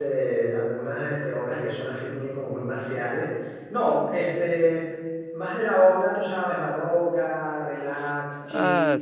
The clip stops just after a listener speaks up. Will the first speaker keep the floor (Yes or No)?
Yes